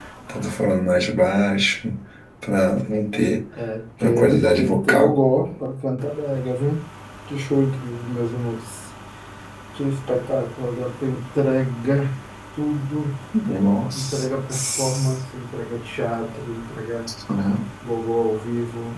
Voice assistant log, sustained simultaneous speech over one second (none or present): present